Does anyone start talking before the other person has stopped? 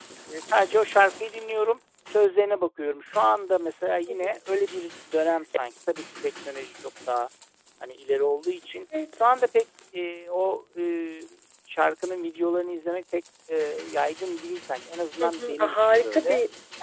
Yes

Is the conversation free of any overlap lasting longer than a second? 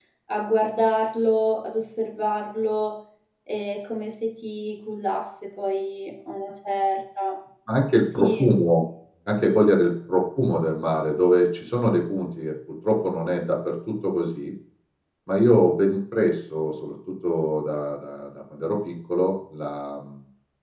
Yes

